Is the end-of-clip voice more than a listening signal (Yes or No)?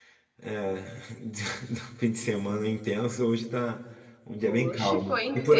Yes